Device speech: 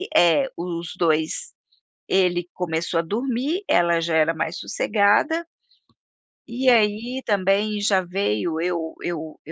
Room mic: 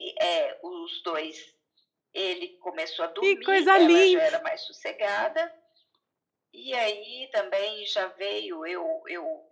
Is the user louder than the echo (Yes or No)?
Yes